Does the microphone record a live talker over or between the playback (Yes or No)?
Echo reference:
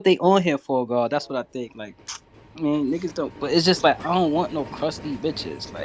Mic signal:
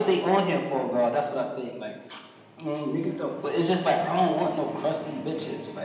No